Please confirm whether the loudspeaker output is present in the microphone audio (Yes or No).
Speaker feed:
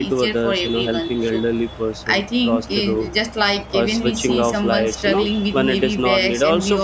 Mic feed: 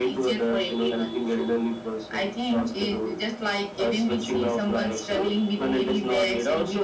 Yes